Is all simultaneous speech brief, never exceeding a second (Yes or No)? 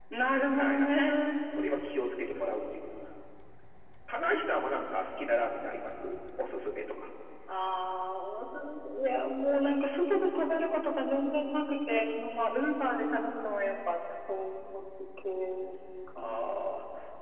Yes